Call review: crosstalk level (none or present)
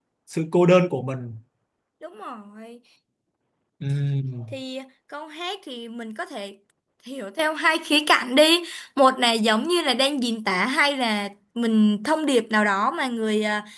none